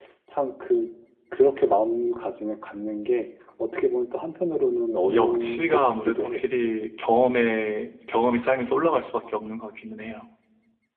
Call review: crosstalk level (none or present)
present